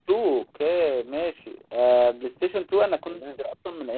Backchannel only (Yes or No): Yes